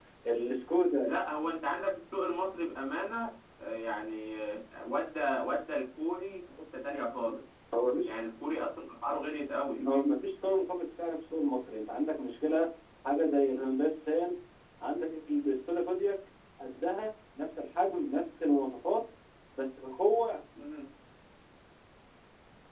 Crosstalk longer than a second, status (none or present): none